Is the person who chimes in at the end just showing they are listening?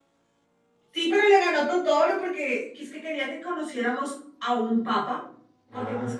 Yes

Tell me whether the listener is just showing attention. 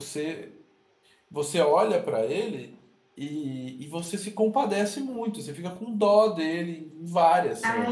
No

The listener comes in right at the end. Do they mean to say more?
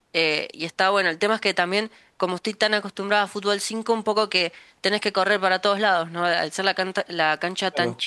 No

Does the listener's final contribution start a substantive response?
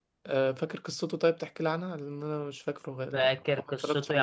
Yes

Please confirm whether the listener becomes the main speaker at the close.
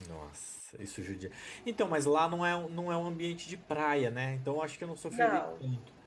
No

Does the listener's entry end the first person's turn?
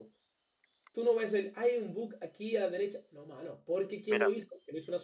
No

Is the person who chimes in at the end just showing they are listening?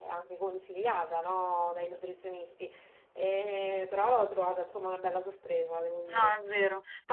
No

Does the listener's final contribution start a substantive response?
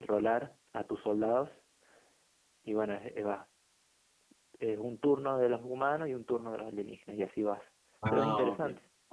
Yes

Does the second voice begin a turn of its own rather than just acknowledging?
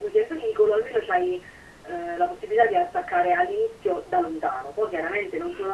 No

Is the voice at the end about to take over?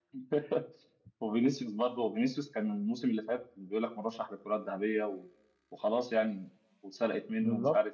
No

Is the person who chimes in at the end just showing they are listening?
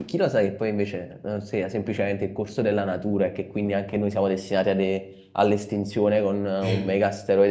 Yes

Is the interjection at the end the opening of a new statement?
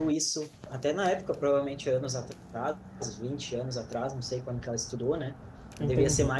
No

